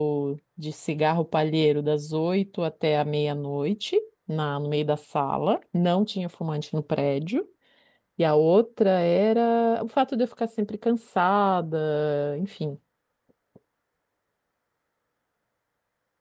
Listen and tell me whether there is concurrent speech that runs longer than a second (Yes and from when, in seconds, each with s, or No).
No